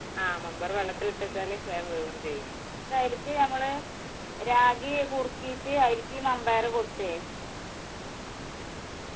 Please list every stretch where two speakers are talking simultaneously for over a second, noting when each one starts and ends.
none

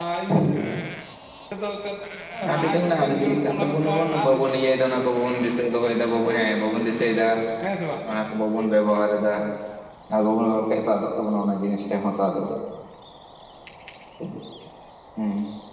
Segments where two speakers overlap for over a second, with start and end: 2.6-4.5

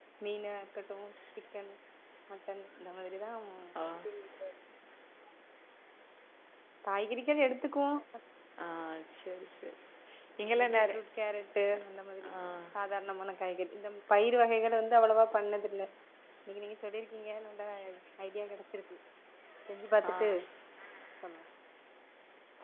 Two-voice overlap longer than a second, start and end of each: none

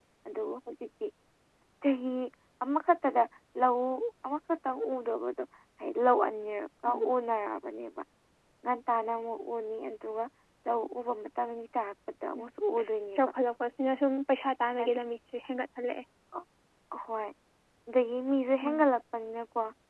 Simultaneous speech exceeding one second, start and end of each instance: none

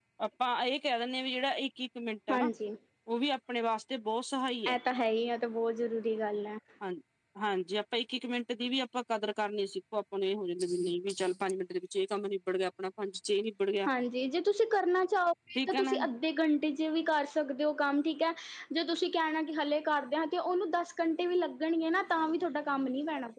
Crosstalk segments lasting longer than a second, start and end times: none

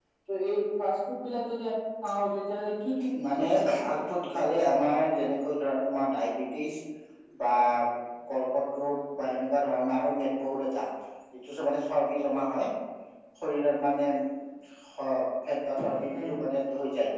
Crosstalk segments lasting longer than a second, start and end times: 3.3-4.9

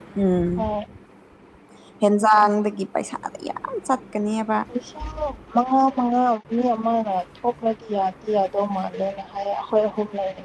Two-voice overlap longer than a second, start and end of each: none

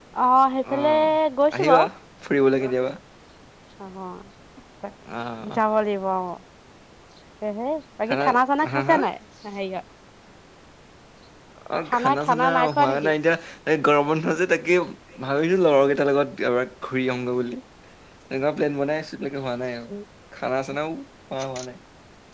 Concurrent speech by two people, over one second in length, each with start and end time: 11.9-13.1

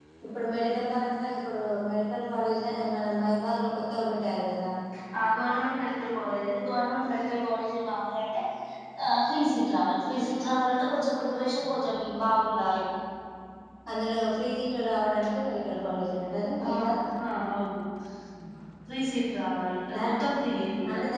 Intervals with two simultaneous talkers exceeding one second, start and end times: none

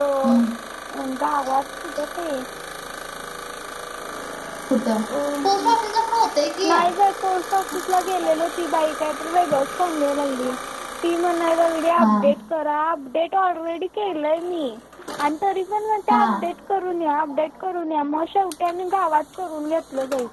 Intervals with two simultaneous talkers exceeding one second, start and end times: none

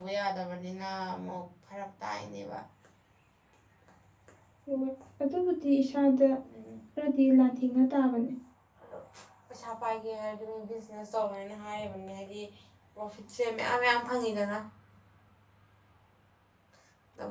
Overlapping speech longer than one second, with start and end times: none

